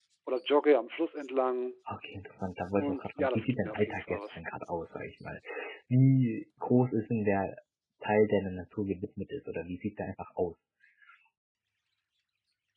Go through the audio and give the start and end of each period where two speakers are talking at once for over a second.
2.8-4.4

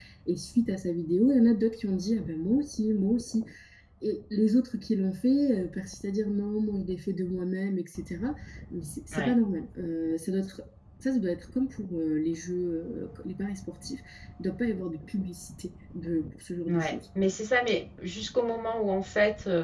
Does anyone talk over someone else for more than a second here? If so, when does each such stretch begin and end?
none

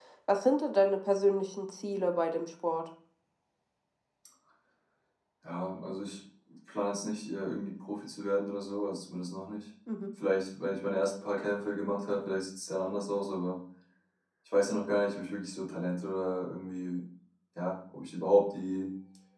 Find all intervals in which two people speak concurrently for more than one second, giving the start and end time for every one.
none

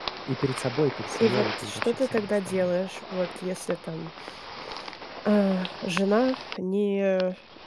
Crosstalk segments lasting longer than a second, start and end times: 1.2-2.7

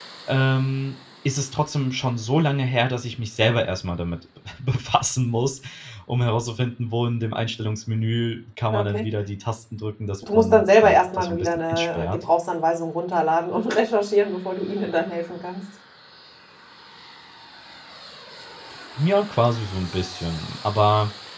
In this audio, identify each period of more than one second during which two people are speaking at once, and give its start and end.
10.3-12.2

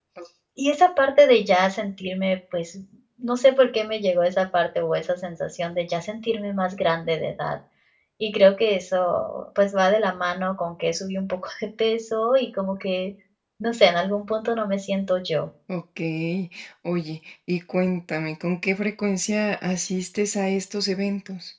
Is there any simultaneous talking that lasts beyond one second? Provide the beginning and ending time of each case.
none

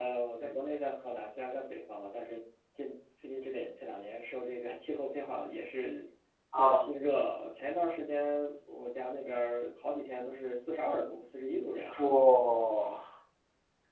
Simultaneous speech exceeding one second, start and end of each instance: none

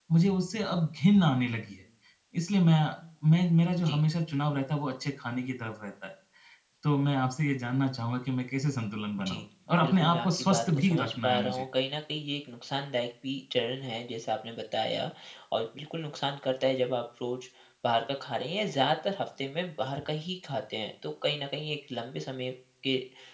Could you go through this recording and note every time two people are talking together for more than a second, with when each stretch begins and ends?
9.8-11.7

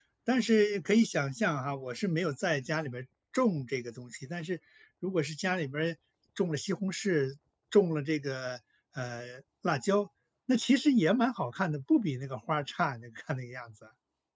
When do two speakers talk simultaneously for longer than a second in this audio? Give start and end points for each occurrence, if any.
none

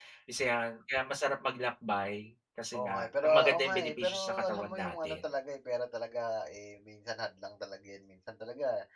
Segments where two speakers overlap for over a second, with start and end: 2.7-5.3

